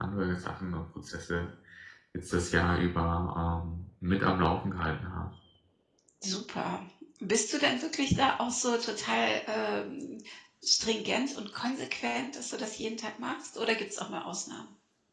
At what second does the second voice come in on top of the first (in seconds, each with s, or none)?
none